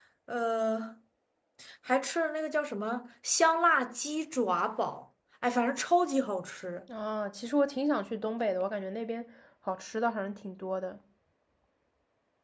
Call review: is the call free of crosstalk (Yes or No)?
Yes